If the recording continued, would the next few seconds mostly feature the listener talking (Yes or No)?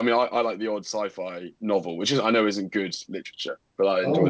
Yes